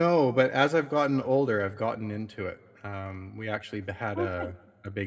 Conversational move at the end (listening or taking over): listening